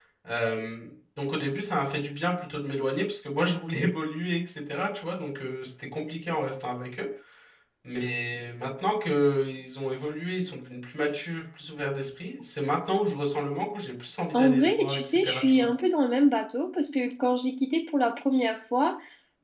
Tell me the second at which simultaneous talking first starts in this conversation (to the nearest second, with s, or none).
14 s